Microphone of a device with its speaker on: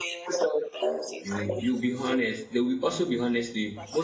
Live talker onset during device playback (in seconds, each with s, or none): 1.2 s